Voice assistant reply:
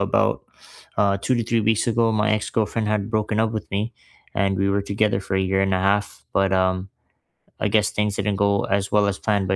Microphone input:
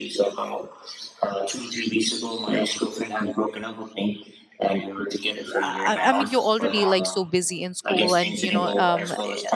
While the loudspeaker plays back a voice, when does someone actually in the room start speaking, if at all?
5.6 s

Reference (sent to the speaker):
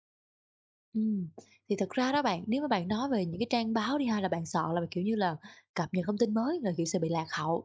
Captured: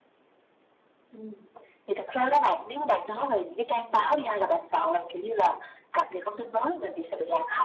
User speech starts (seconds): none

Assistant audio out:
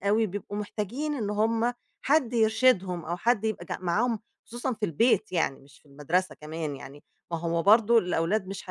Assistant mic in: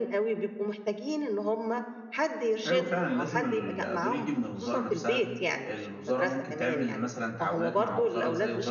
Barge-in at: 2.6 s

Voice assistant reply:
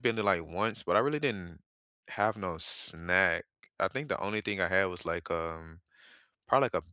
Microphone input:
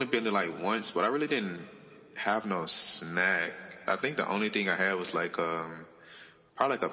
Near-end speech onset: none

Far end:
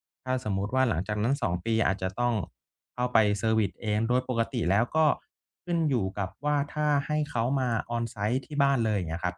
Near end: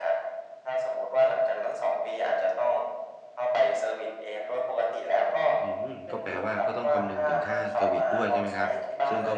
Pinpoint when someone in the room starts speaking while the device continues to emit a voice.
5.6 s

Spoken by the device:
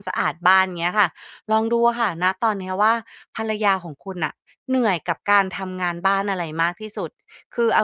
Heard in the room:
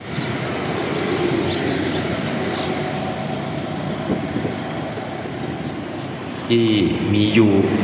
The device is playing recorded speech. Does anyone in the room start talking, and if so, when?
6.5 s

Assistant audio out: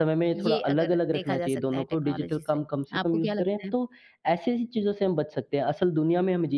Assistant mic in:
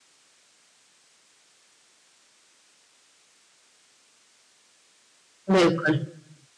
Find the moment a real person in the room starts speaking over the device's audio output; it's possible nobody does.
5.5 s

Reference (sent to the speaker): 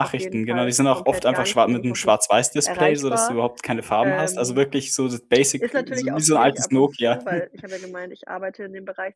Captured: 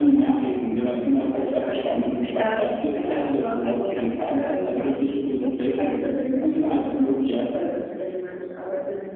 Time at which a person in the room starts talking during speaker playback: 2.4 s

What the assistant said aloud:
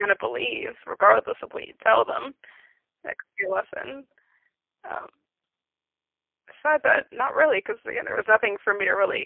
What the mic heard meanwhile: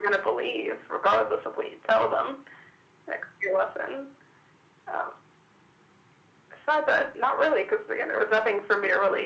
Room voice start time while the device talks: none

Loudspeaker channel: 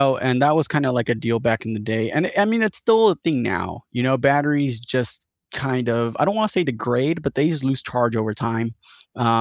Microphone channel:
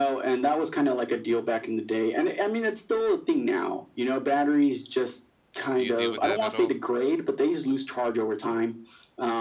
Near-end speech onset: 5.7 s

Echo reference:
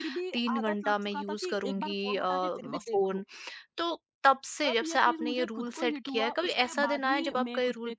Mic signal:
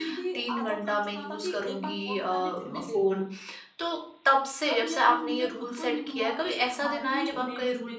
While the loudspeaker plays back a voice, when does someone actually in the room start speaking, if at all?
none

